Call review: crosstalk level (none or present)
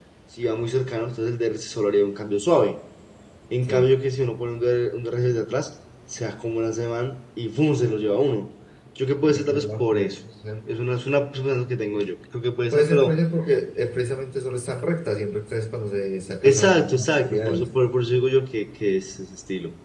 present